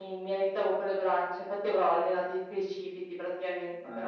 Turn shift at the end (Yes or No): Yes